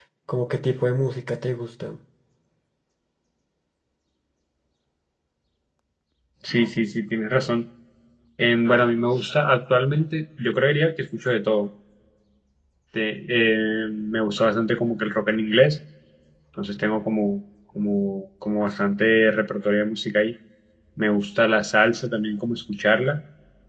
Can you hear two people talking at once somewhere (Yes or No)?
No